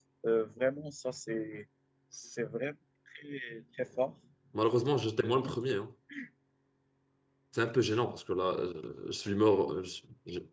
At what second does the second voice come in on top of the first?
none

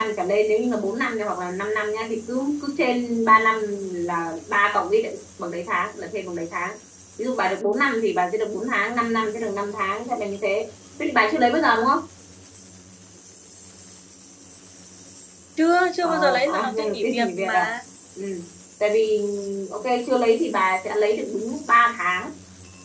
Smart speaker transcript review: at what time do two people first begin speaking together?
16.0 s

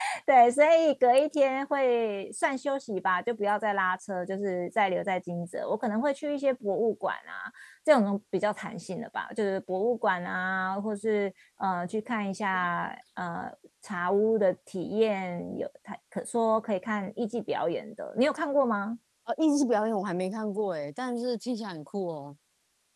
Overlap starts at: none

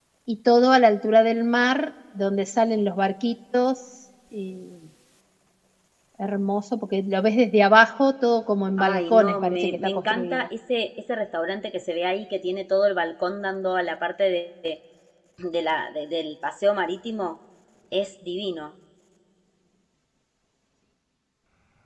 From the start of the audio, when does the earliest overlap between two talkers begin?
8.8 s

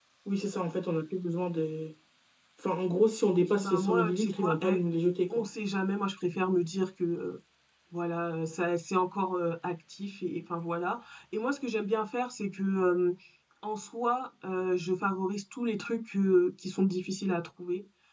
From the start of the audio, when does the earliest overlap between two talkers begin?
3.3 s

